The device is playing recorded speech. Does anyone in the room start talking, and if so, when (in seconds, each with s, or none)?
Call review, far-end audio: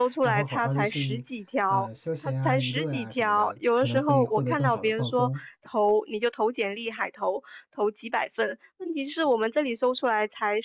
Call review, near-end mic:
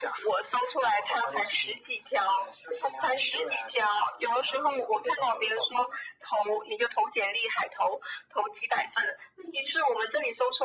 none